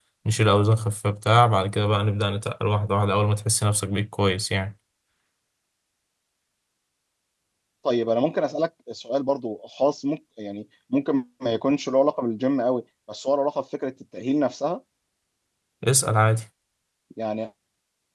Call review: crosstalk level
none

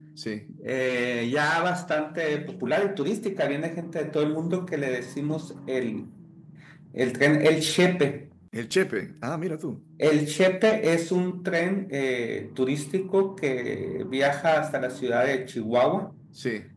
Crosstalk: none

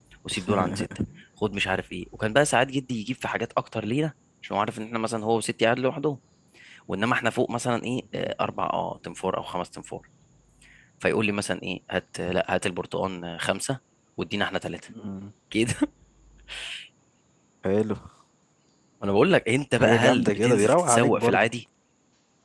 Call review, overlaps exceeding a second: present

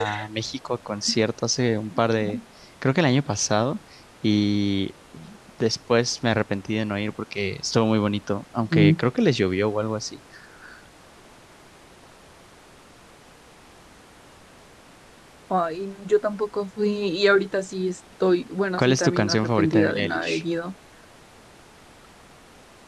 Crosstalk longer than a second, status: present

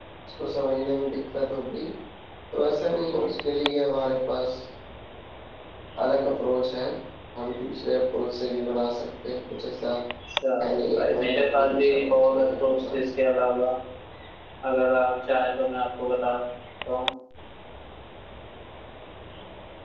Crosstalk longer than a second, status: present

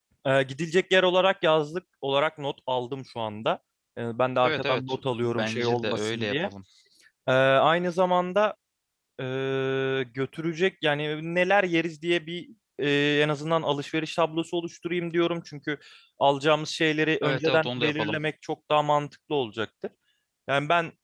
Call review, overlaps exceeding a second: present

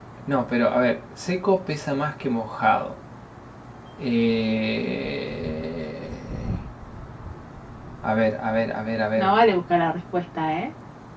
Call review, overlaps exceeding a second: none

